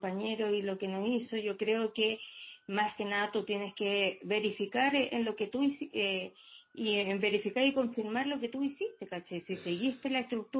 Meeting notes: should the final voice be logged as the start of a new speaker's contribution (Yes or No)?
No